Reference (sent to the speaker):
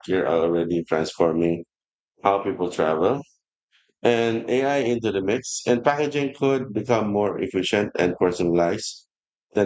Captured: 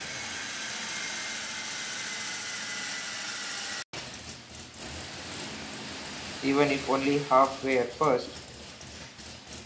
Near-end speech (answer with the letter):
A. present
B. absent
A